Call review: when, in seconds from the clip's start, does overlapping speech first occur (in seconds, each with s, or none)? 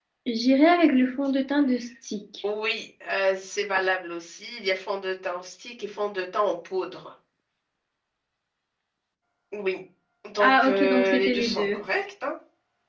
10.4 s